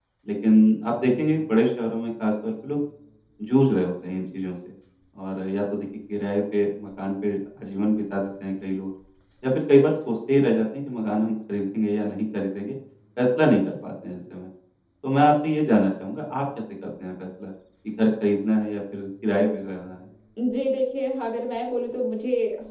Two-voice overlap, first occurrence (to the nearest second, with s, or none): none